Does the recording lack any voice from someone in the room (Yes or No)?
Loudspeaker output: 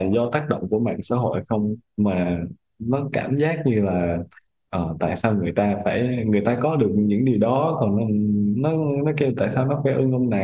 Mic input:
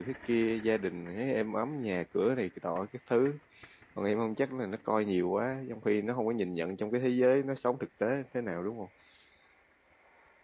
No